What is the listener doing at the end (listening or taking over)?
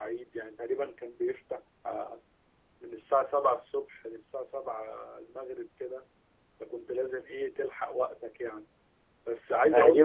taking over